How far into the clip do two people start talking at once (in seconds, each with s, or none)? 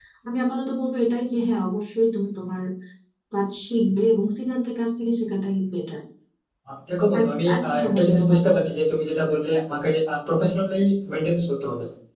7.2 s